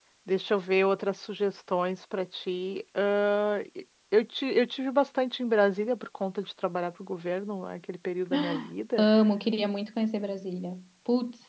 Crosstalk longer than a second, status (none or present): none